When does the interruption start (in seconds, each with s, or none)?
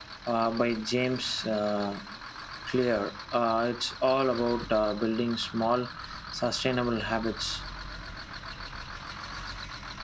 none